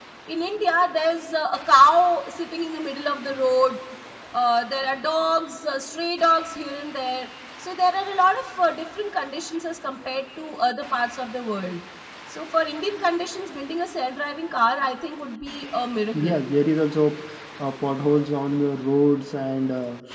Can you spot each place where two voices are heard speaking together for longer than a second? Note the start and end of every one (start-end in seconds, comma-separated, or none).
none